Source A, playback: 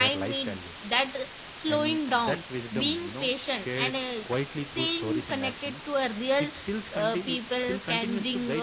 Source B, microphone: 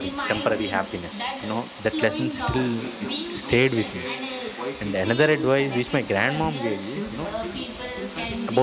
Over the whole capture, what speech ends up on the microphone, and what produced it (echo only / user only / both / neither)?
both